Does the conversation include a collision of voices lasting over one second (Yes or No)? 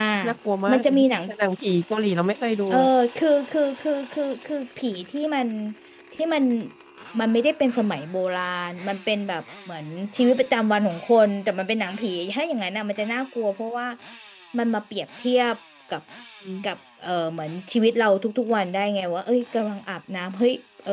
No